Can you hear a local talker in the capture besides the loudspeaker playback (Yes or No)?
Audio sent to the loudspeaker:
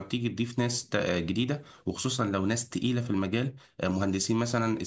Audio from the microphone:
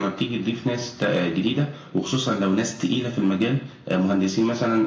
No